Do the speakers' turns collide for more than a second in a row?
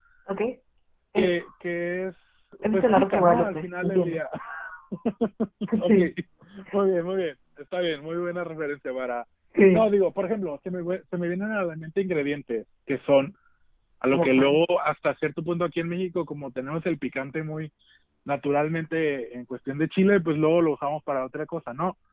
Yes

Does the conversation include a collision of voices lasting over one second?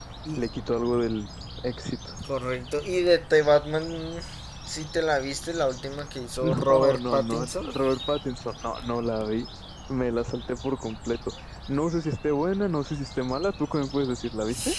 Yes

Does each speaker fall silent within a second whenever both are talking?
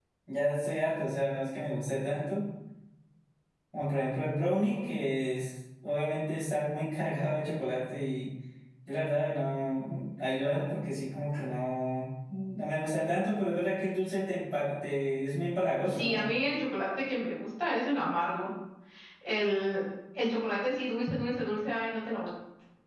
Yes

